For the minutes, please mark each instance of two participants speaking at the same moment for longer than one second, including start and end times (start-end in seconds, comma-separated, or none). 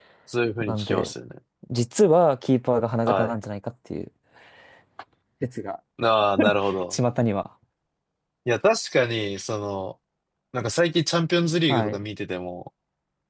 none